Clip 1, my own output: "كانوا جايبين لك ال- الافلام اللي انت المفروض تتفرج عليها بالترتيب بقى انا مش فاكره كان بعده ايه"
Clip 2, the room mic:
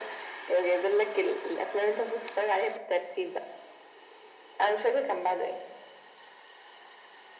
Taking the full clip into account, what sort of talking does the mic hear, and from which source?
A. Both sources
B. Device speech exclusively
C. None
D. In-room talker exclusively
B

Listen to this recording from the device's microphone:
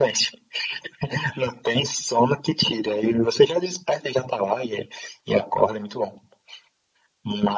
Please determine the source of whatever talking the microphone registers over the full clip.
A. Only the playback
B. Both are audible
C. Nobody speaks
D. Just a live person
A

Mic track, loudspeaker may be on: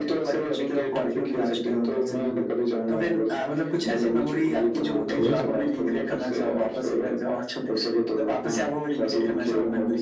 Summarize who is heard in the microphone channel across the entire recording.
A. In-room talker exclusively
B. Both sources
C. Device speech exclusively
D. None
B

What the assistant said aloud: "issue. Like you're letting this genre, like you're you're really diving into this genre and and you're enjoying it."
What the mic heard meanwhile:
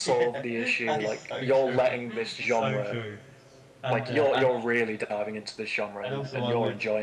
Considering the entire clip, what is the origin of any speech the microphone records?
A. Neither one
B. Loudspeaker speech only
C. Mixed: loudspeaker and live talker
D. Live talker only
C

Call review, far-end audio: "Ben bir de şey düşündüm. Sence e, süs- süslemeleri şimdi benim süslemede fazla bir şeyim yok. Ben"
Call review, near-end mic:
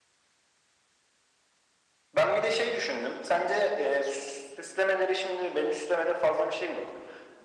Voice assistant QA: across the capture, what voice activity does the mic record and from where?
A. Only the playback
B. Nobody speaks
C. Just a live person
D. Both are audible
A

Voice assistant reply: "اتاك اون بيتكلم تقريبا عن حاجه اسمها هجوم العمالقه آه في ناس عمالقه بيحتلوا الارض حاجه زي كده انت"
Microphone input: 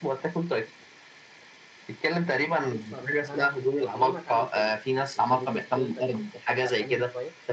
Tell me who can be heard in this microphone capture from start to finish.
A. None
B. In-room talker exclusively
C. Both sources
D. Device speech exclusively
C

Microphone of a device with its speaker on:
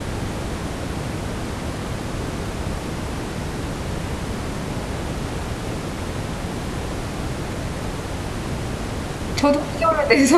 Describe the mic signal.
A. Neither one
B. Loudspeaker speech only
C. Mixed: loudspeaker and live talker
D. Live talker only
D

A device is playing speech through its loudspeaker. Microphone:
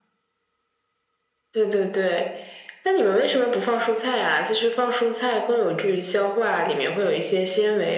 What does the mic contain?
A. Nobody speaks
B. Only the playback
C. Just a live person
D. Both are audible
B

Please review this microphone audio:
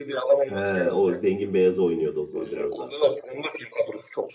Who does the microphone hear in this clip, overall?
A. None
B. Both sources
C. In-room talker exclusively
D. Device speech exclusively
B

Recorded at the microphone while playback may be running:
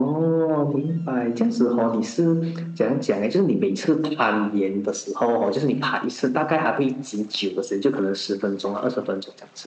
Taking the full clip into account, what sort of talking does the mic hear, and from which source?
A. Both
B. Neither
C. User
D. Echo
D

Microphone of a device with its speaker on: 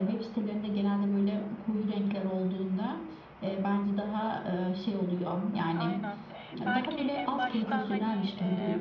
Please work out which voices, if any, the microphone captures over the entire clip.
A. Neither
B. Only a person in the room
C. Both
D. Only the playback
C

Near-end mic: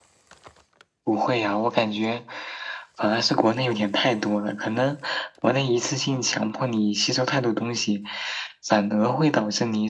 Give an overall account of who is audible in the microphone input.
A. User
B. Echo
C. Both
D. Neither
B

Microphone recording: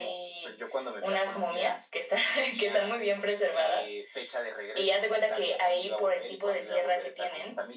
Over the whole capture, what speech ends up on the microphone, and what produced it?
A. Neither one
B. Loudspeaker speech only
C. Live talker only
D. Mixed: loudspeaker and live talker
B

